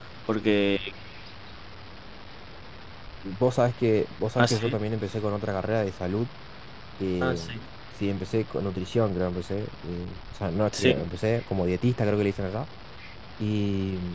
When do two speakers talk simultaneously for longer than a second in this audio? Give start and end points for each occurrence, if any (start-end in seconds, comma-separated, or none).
none